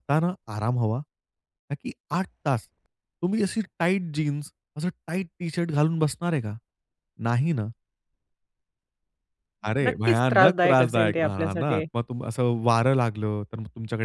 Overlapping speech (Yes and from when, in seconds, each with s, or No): Yes, from 9.8 s